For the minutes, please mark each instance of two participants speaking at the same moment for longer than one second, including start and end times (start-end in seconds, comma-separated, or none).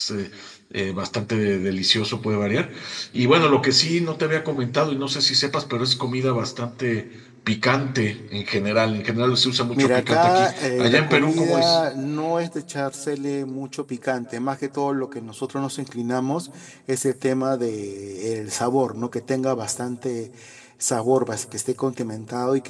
9.8-11.8